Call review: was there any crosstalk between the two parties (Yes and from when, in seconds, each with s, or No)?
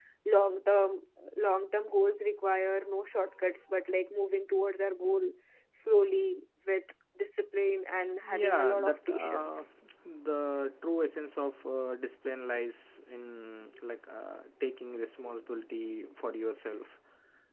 Yes, from 8.2 s